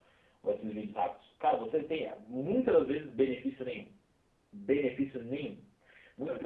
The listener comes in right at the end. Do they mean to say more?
No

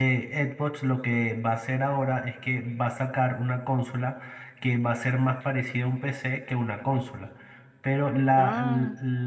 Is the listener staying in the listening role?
Yes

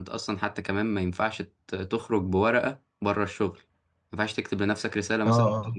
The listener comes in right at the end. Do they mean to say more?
No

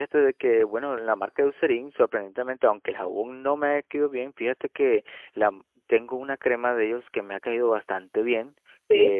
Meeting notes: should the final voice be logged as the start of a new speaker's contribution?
No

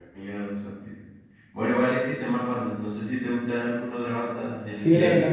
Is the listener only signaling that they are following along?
No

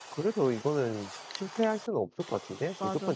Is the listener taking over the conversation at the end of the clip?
Yes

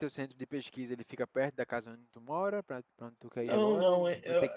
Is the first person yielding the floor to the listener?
Yes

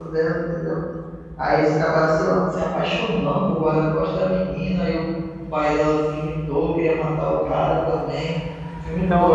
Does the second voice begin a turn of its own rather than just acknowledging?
Yes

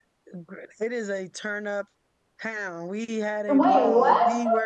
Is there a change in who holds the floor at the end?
No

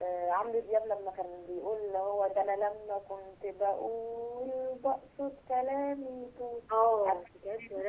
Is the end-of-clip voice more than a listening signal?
Yes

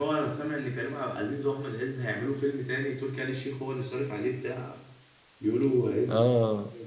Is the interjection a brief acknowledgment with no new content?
No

